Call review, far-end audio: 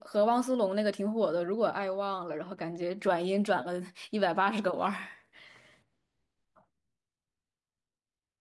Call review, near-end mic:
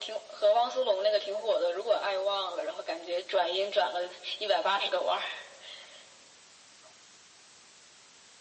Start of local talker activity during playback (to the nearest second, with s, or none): none